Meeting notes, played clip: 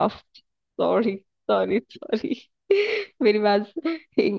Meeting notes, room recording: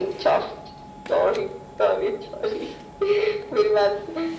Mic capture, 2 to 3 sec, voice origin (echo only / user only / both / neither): echo only